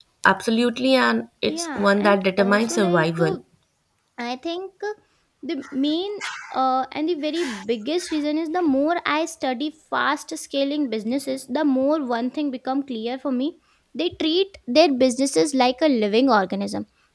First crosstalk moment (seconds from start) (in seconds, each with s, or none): 1.5 s